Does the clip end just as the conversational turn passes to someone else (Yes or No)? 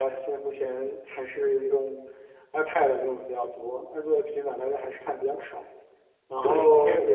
Yes